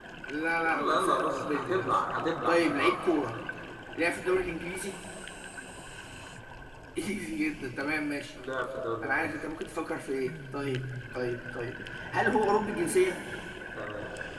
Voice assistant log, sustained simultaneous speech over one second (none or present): present